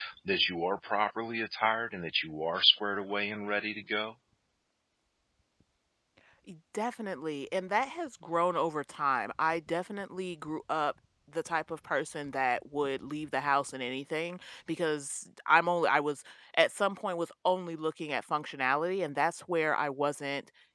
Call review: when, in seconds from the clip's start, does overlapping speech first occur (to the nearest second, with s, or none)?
none